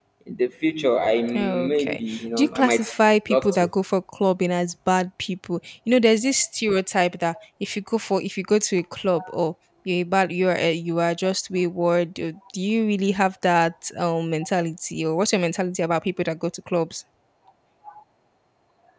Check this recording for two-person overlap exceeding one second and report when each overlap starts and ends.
1.4-2.8

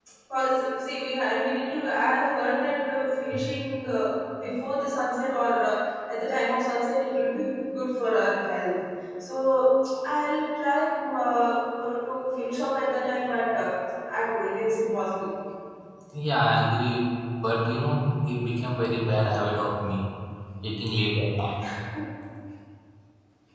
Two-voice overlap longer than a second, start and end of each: none

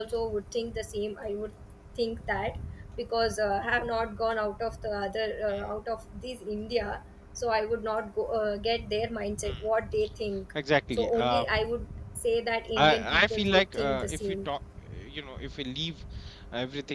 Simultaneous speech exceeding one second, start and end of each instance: 12.8-14.3

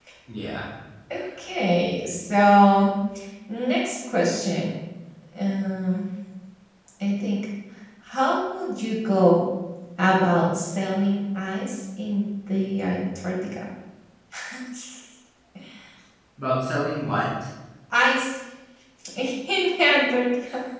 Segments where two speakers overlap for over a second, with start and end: none

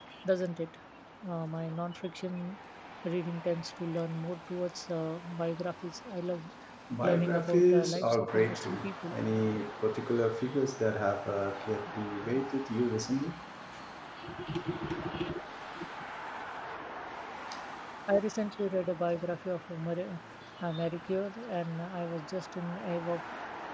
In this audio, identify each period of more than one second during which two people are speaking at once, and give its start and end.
7.0-9.2

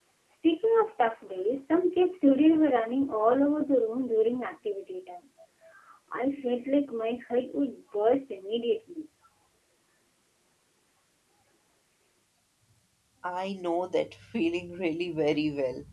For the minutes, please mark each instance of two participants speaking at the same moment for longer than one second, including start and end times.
none

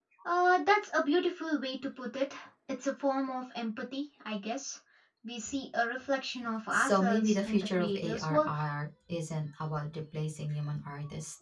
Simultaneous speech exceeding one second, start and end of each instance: 6.7-8.6

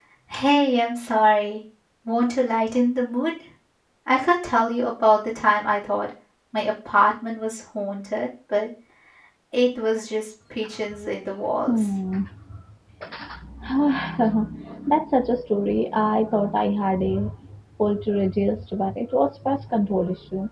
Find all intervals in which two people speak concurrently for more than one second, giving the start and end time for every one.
none

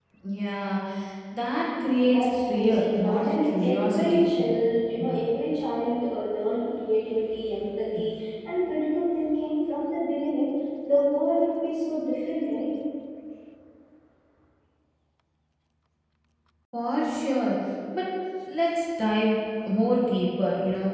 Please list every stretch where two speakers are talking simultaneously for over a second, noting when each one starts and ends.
2.0-4.3

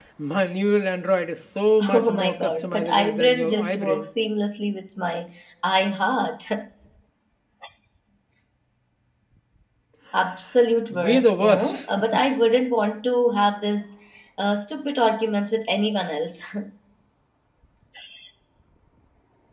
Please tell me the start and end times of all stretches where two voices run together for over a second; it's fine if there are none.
1.9-4.1, 10.9-12.2

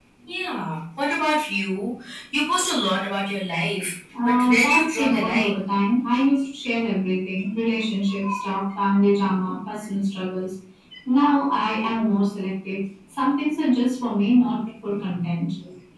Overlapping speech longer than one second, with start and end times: 4.2-5.6

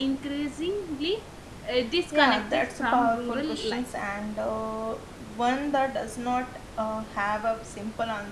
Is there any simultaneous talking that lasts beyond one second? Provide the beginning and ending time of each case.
2.1-3.8

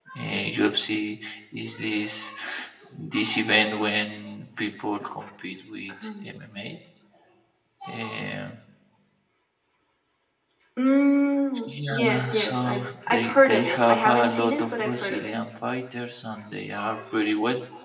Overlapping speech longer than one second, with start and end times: 11.7-15.4

